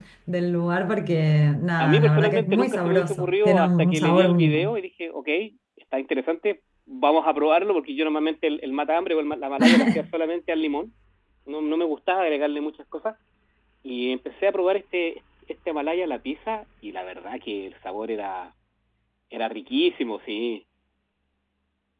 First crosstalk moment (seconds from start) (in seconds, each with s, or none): 1.8 s